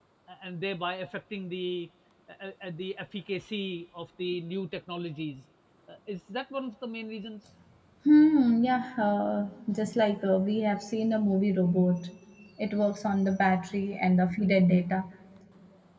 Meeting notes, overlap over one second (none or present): none